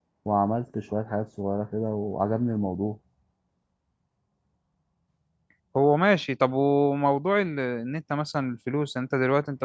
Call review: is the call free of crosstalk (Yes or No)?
Yes